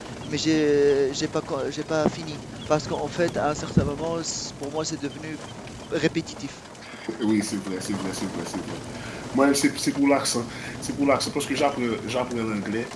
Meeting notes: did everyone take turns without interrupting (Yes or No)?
Yes